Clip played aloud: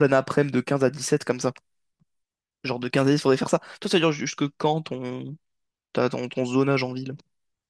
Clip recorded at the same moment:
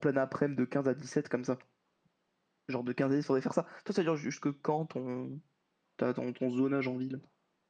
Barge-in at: none

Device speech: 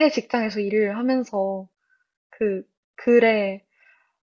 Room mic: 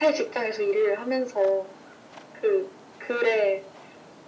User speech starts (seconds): none

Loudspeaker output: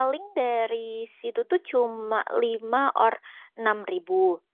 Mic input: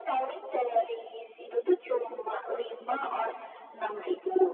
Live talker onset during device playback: none

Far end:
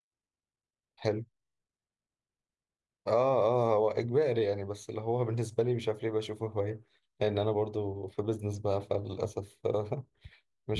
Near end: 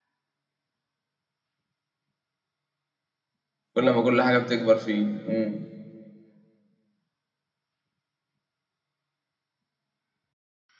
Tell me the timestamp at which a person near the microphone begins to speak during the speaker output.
3.8 s

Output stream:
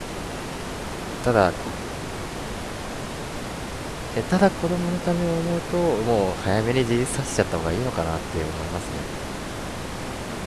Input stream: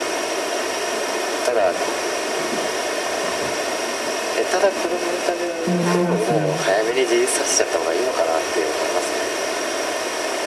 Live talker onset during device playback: 5.6 s

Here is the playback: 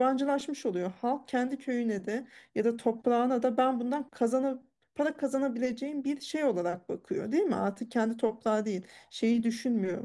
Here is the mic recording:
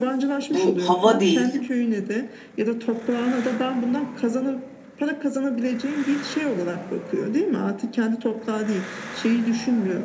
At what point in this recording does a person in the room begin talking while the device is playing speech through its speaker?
0.5 s

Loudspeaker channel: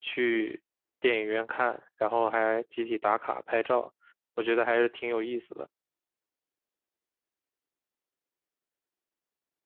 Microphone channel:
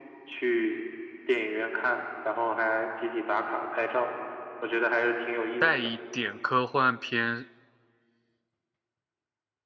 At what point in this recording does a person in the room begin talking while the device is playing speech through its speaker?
5.6 s

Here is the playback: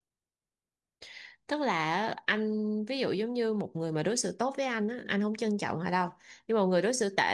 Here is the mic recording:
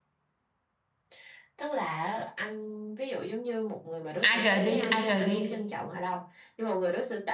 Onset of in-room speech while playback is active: 4.2 s

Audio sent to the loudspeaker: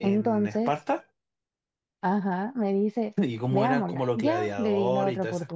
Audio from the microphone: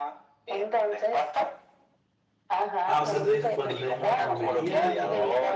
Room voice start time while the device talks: 2.9 s

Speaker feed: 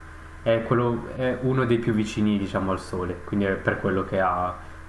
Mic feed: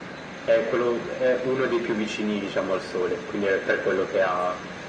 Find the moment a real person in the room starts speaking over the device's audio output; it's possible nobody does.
none

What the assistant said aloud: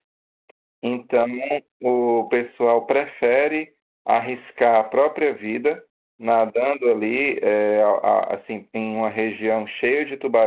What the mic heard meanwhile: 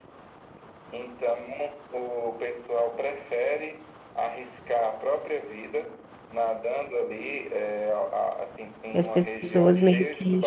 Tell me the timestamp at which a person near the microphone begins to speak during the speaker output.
8.9 s

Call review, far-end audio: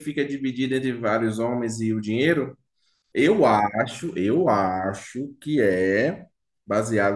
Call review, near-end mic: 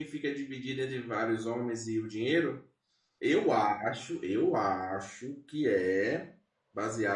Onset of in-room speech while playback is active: none

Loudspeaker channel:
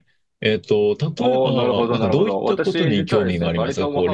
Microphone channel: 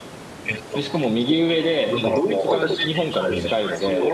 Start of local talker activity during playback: 0.7 s

